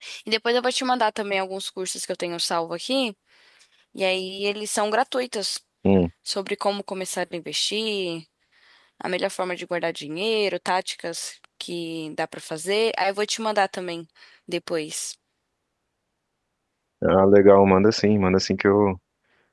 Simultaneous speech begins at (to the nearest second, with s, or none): none